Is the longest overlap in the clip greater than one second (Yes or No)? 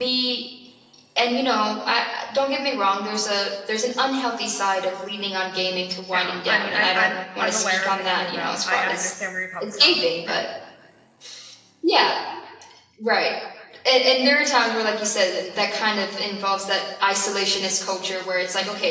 Yes